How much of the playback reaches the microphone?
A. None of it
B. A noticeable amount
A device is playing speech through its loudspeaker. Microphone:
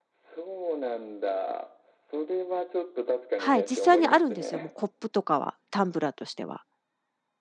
B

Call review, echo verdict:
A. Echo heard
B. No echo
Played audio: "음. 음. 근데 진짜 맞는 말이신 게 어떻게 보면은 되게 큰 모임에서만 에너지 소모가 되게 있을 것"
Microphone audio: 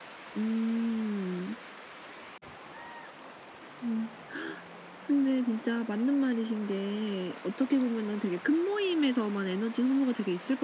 A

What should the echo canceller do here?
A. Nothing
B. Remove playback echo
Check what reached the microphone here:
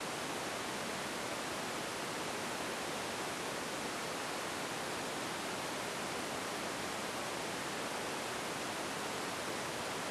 A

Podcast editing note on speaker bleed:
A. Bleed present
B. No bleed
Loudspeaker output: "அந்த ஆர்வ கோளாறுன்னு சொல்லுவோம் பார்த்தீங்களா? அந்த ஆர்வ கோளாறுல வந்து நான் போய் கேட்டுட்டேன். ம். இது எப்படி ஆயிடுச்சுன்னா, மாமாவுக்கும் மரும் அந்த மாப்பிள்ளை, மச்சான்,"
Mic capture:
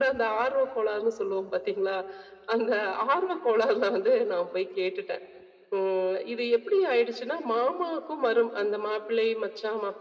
A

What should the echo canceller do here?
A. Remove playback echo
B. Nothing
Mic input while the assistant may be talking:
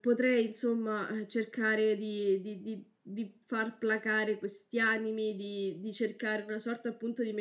B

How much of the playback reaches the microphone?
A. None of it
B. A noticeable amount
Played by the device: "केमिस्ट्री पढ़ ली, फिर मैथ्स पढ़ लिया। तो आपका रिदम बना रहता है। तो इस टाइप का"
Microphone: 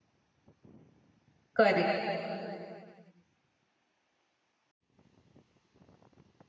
A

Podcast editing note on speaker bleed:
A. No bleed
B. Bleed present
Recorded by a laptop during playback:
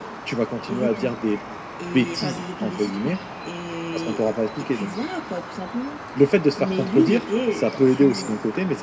B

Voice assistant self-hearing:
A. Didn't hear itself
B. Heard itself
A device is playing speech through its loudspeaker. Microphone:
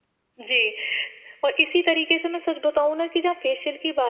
B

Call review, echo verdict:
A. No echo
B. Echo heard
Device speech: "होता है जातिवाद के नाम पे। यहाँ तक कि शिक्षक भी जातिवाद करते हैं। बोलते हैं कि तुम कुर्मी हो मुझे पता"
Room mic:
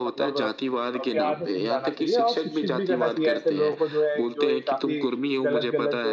B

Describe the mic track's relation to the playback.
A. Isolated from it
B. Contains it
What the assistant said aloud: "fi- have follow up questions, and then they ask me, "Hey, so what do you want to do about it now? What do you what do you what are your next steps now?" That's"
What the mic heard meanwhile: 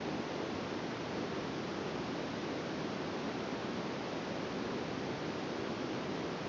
A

